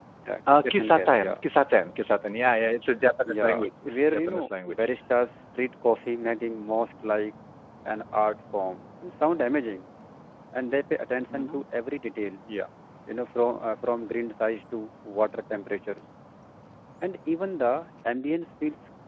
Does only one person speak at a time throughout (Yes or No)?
No